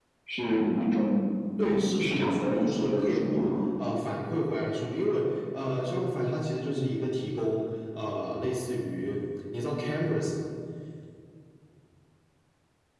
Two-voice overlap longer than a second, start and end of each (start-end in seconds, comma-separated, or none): 1.6-3.5